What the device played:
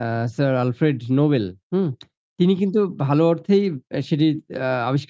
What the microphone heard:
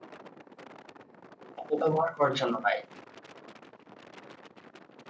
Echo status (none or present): none